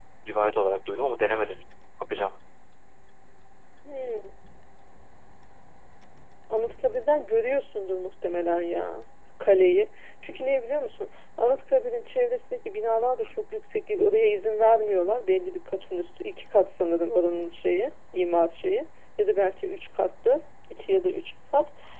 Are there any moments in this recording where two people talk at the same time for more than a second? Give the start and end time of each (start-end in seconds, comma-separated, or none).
none